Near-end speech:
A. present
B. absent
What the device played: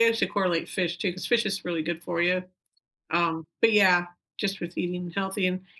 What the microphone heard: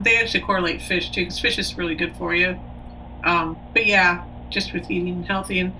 B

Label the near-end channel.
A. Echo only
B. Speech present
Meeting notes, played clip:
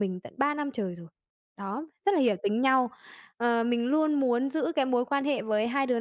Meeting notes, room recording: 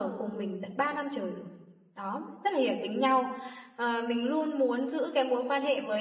A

